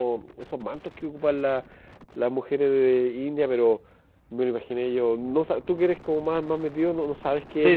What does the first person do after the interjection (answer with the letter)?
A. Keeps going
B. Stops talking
B